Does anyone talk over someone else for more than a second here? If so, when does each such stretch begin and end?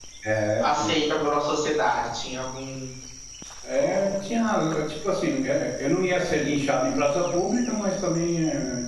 none

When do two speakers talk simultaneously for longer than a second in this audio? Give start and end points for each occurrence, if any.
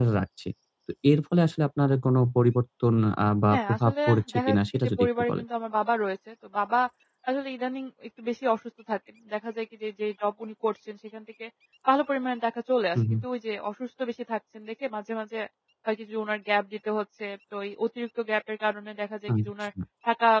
3.5-5.4

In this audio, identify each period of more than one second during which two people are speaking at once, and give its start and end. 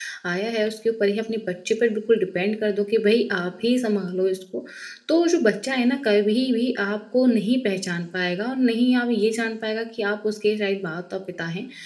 none

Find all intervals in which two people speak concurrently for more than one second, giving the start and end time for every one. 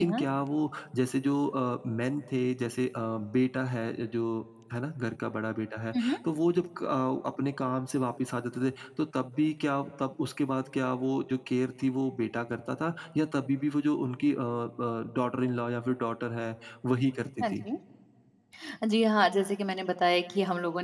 none

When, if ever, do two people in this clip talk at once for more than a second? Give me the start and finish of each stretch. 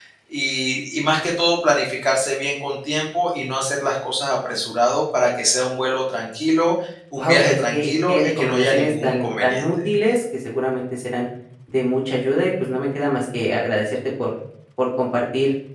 7.2-9.6

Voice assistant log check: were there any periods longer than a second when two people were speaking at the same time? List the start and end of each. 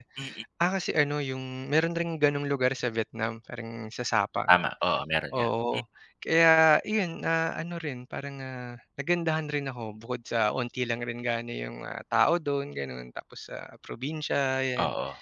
none

